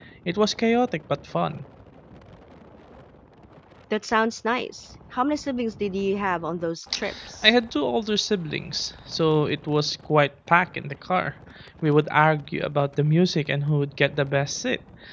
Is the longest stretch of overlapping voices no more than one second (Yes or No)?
Yes